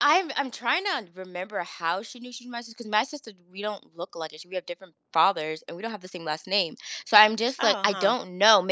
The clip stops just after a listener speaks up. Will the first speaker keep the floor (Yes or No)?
Yes